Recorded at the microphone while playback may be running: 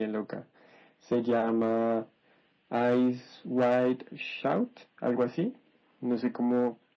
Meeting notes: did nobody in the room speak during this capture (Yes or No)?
Yes